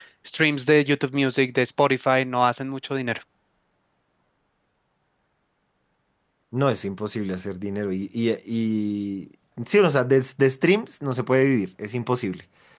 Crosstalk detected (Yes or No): No